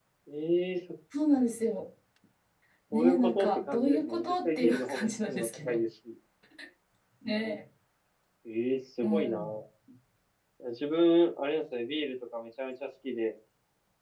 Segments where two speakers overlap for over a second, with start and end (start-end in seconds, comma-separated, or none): 2.9-5.8